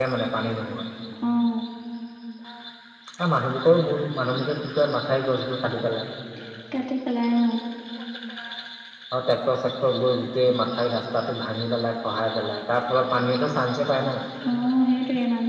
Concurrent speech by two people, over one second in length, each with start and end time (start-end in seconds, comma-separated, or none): none